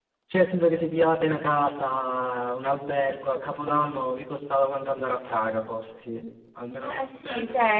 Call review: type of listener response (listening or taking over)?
taking over